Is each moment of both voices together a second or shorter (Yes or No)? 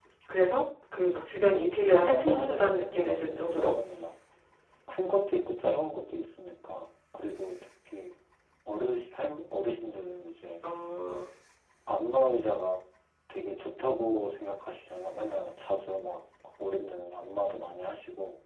No